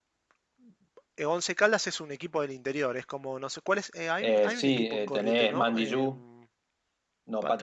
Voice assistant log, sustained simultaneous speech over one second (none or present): present